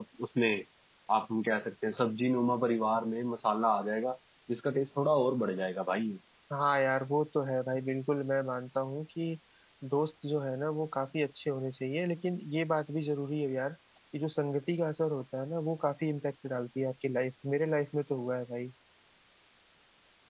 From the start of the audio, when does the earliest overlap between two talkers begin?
none

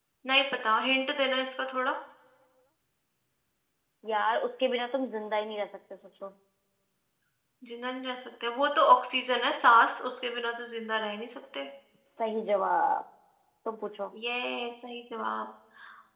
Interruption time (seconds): none

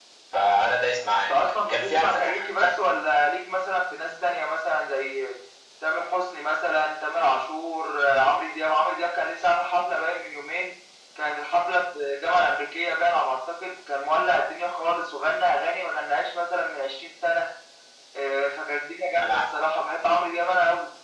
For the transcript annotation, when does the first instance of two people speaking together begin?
1 s

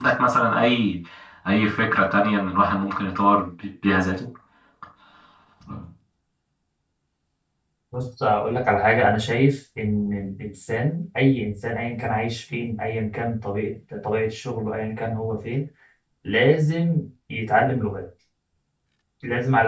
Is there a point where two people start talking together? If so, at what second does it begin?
none

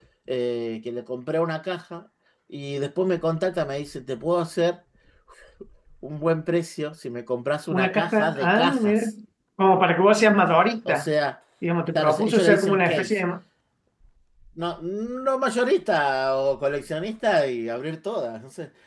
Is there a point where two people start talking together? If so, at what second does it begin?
8 s

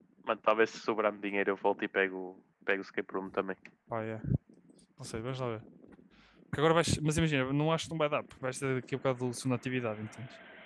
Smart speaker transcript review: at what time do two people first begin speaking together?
none

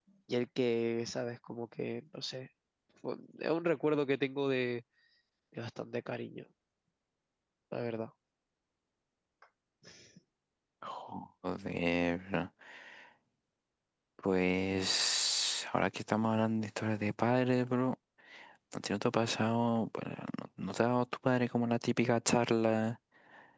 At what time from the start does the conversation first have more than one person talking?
none

